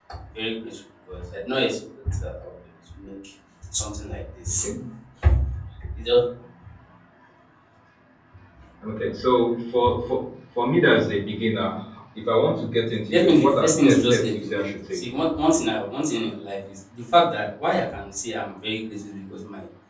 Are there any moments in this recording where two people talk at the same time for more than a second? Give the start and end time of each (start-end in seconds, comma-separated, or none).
13.1-15.0